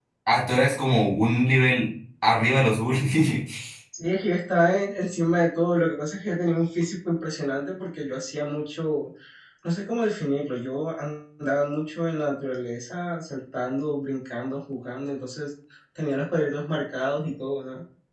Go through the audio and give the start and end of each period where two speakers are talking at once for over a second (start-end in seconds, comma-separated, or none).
none